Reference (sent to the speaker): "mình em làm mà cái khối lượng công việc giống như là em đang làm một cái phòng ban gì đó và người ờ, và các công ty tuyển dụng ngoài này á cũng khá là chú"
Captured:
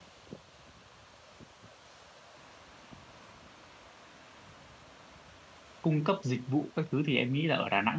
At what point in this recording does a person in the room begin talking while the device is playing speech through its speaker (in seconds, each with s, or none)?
5.8 s